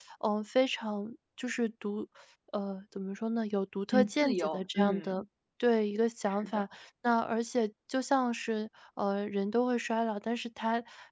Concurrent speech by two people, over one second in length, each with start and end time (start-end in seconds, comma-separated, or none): 3.9-5.2